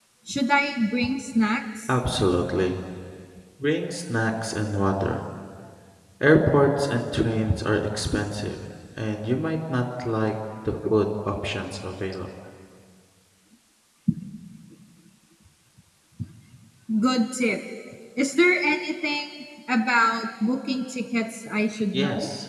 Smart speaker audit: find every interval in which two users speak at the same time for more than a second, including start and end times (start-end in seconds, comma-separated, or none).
none